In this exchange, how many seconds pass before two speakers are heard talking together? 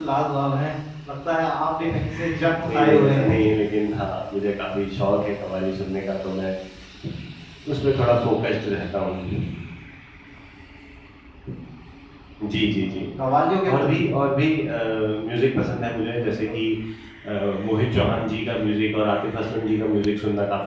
2.1 s

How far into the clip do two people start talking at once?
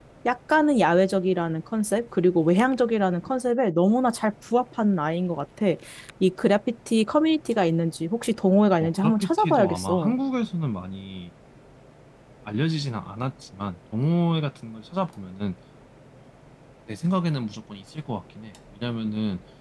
8.8 s

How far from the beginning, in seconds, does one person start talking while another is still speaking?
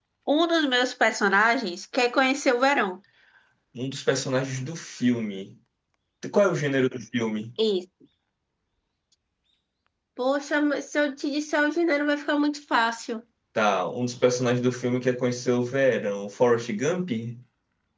none

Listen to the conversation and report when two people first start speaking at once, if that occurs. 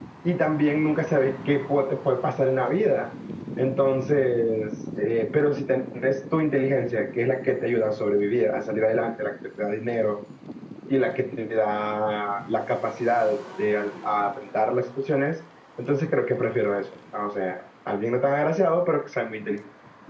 none

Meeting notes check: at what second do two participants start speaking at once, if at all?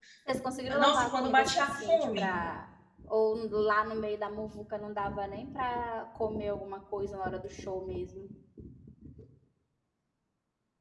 0.8 s

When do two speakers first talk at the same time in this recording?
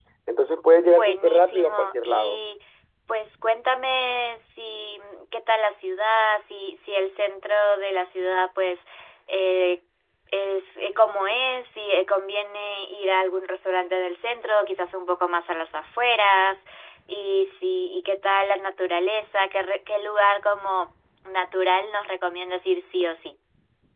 0.9 s

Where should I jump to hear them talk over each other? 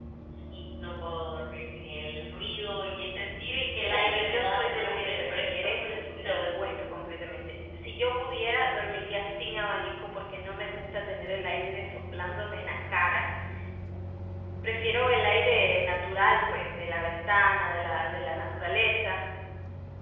3.8 s

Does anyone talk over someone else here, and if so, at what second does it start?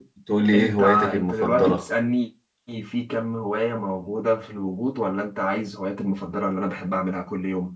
0.5 s

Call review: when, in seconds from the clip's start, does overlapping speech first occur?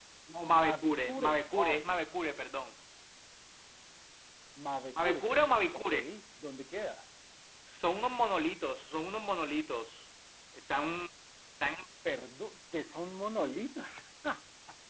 0.5 s

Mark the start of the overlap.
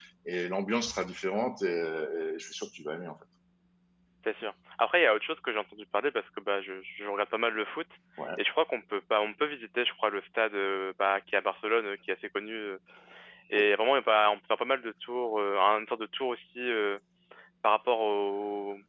none

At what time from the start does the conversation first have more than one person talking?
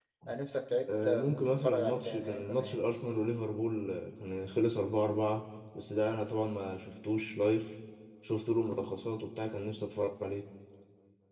1.0 s

